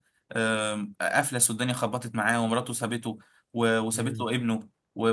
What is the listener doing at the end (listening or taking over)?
listening